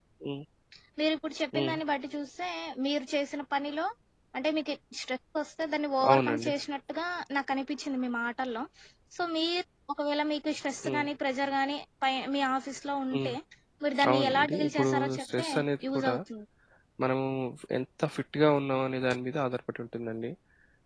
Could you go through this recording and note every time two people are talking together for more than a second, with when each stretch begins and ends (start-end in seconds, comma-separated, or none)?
14.1-15.5